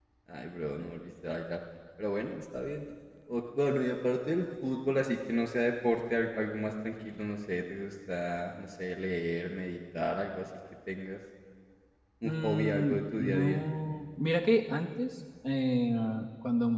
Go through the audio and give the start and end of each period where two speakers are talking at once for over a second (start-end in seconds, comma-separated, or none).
12.2-13.6